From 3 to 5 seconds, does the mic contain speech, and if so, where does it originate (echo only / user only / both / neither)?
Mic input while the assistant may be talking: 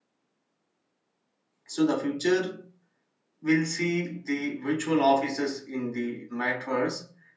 user only